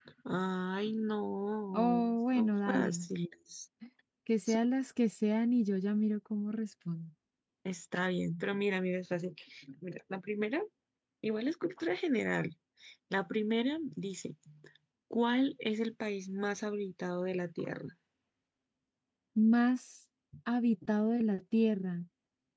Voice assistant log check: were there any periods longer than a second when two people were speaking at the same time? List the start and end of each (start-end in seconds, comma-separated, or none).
1.7-3.0